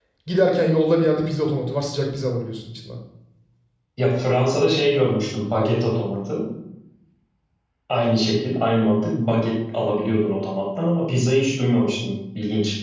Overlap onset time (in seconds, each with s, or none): none